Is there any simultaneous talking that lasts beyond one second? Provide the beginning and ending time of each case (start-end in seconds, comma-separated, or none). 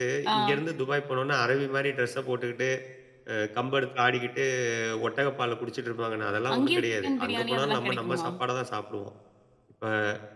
6.5-8.2